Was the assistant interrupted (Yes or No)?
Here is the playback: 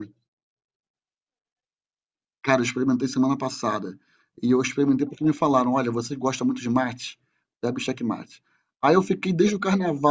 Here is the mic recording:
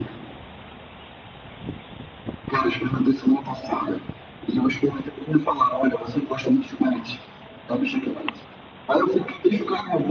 No